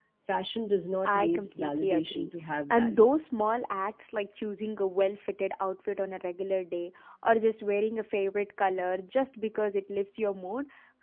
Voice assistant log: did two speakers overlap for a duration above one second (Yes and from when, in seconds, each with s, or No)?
Yes, from 1.1 s